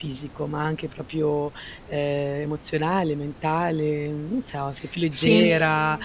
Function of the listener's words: listening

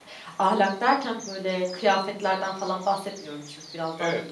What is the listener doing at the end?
taking over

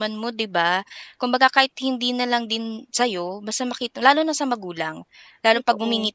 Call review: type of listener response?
listening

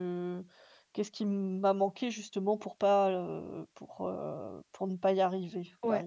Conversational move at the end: taking over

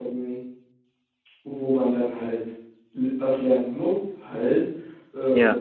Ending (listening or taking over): listening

